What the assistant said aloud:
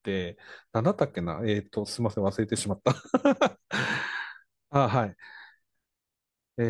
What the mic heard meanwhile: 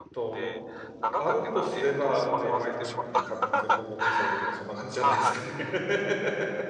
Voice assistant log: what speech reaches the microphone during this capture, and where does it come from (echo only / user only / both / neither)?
both